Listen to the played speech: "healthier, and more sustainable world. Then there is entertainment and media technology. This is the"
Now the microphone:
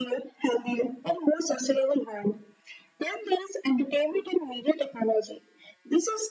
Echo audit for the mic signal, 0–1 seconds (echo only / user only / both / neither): echo only